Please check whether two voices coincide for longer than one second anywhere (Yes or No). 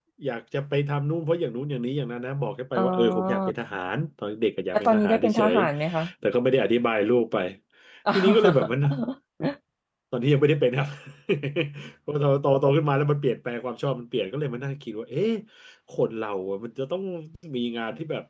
Yes